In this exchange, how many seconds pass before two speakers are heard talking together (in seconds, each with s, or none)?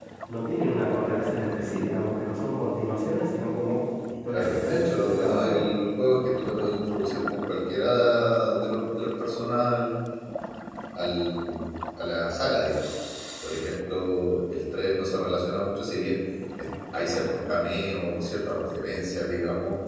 4.3 s